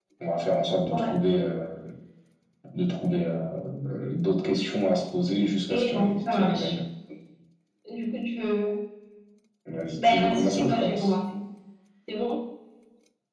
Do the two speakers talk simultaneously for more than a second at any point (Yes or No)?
Yes